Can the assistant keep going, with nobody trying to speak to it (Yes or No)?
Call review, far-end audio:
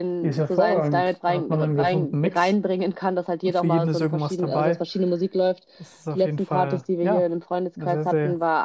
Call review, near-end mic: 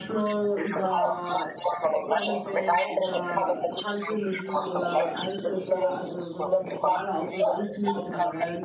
No